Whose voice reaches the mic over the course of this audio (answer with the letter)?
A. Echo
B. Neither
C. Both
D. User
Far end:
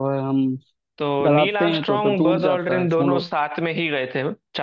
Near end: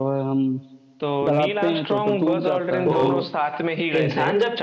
C